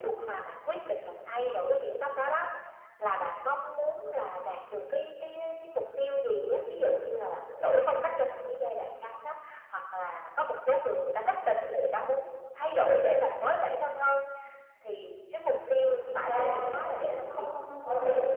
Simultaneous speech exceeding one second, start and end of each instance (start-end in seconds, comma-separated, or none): 15.8-17.5